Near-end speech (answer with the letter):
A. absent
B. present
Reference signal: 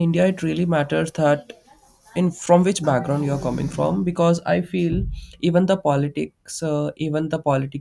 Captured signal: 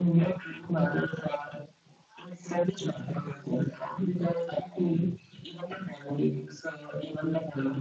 A